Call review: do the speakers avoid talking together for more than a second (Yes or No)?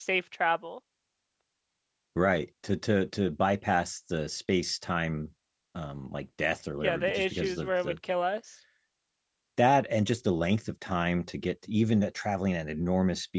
No